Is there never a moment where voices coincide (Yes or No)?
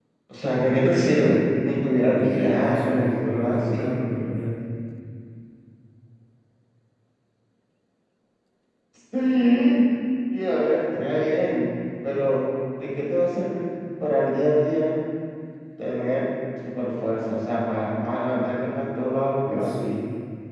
No